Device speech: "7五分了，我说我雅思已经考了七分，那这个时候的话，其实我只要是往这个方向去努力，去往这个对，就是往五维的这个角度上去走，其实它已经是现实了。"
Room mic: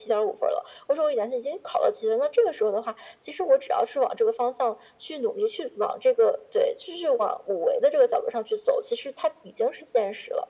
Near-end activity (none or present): none